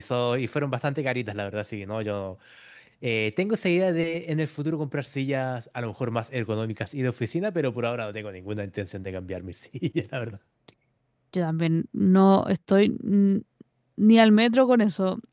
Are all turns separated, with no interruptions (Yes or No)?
Yes